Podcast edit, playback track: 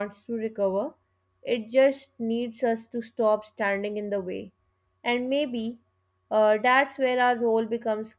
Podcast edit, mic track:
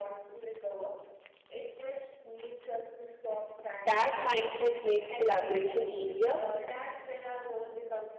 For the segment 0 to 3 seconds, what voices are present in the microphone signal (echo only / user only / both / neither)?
echo only